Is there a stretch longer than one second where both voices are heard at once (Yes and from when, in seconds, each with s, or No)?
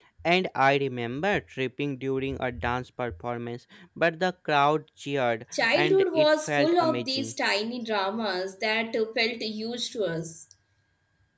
Yes, from 5.5 s